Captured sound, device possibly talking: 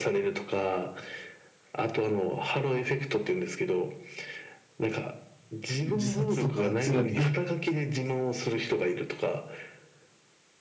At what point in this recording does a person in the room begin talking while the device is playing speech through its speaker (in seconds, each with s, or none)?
5.8 s